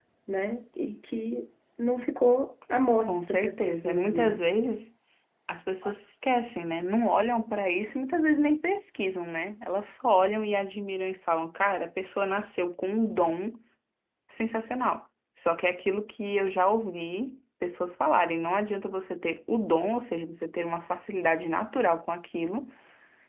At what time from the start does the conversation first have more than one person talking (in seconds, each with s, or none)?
3.1 s